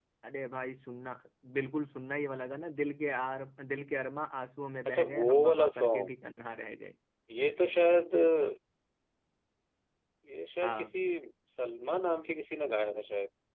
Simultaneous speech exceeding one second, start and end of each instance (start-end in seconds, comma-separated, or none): 4.9-6.2